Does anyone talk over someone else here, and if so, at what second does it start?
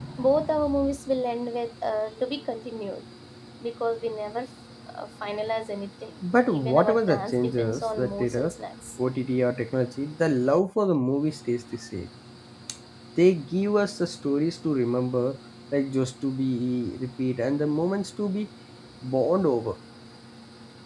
6.5 s

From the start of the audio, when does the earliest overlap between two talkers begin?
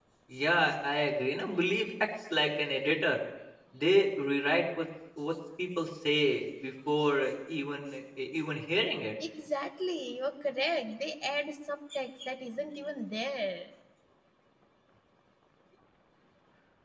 none

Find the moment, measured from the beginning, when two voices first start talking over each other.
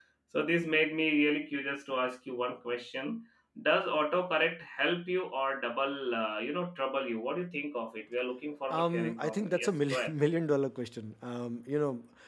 8.7 s

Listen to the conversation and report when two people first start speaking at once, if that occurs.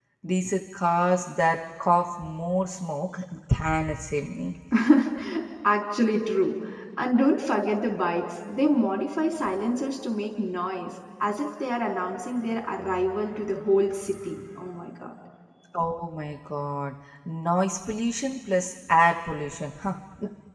none

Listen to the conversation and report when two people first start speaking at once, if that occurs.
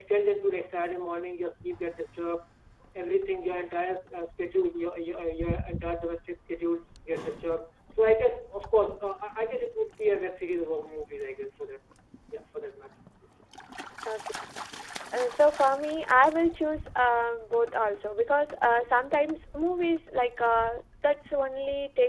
none

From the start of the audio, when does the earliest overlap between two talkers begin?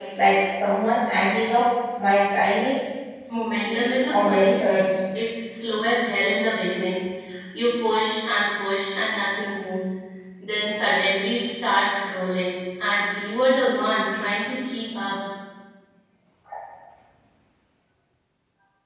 3.6 s

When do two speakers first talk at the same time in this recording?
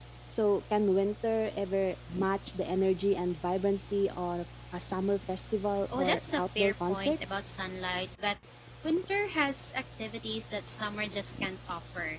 5.9 s

